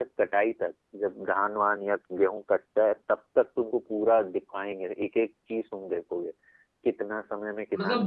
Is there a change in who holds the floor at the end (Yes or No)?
Yes